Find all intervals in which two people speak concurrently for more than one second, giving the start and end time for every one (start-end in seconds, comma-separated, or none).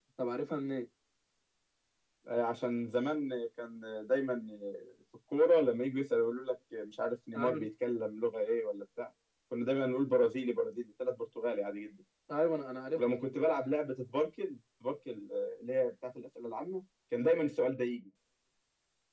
none